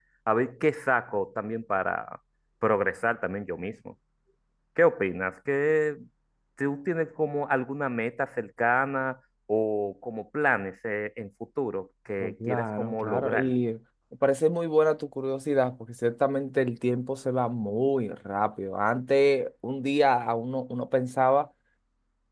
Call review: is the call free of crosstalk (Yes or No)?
No